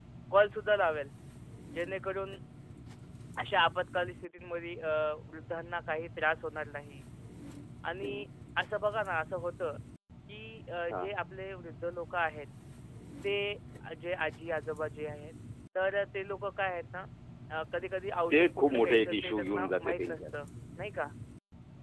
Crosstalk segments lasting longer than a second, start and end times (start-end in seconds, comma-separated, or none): 18.3-20.2